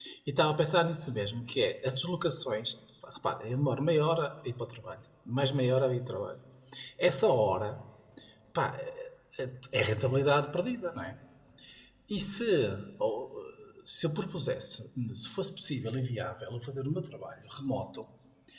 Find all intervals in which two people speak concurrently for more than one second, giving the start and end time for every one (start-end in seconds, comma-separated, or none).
none